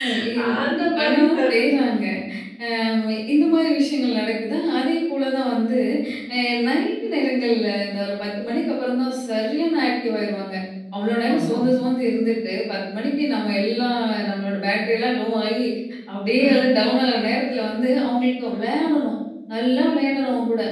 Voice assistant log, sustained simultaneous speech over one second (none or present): present